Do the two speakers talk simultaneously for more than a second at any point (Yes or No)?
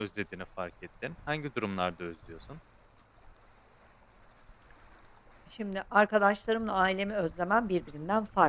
No